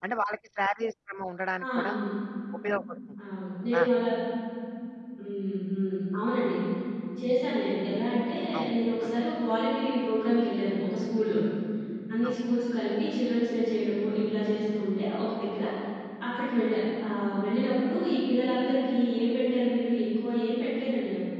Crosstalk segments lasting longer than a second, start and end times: none

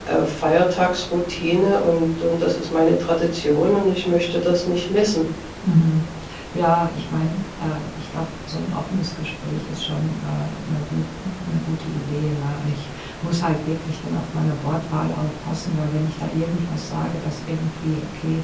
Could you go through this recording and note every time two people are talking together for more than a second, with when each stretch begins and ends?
none

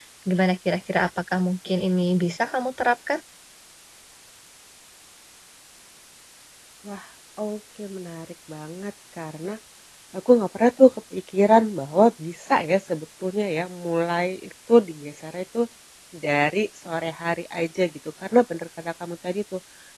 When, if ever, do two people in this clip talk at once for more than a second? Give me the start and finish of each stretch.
none

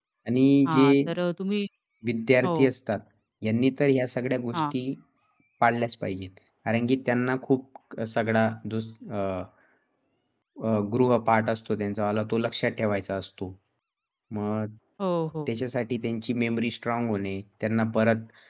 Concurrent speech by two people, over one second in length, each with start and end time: none

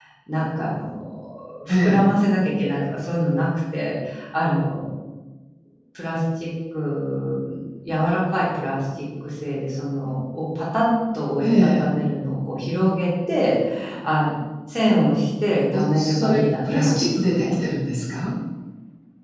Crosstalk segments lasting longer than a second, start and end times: 15.7-17.6

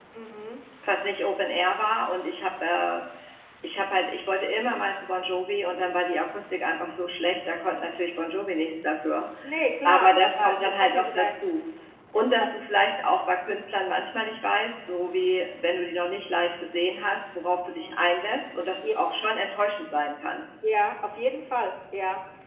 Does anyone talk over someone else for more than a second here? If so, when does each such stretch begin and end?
9.8-11.5

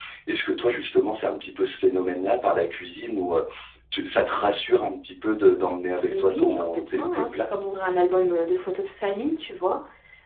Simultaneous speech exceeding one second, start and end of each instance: 6.0-7.5

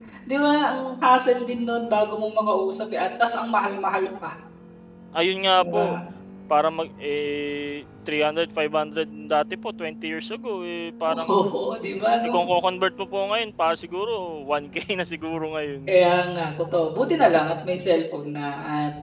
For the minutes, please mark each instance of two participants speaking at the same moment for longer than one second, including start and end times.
none

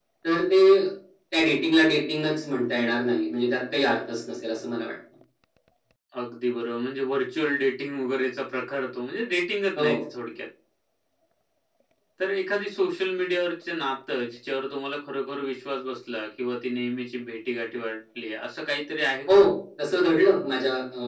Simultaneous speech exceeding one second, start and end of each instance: none

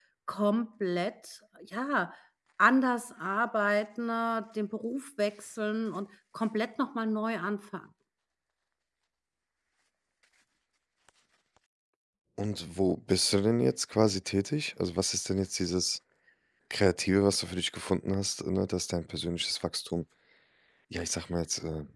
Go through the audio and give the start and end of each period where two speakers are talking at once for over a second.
none

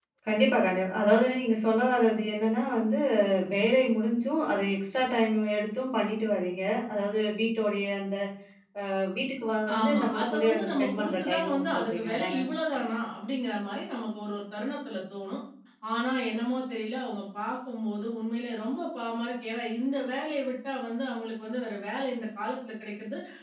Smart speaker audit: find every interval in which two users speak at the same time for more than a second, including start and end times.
9.8-12.4

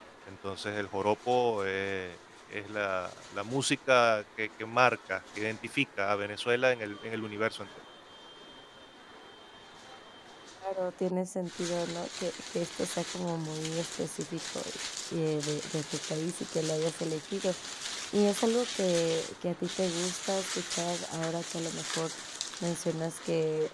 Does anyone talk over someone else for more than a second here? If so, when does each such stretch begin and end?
none

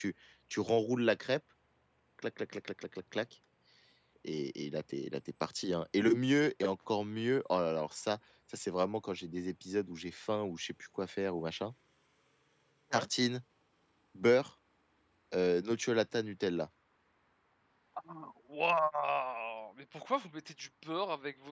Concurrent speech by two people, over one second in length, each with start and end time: none

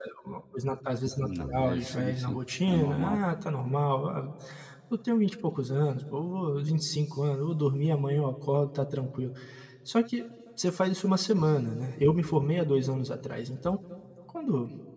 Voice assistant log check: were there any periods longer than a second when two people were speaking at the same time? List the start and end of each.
1.2-3.2

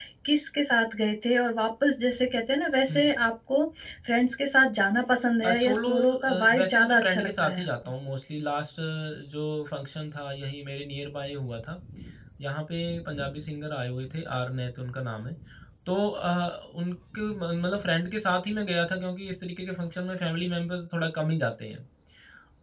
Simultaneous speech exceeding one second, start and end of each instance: 5.4-7.7

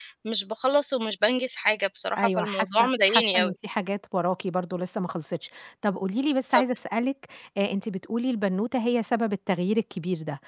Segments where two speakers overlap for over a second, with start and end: 2.2-3.5

